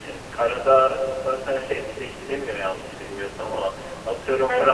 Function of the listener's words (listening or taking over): listening